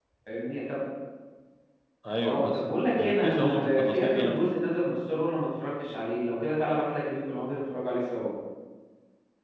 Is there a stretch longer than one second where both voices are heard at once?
Yes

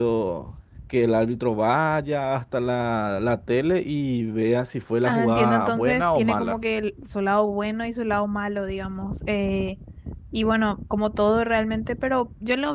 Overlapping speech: Yes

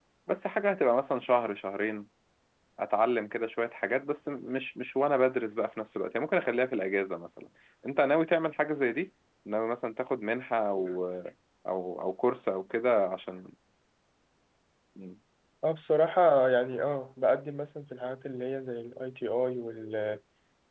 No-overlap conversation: Yes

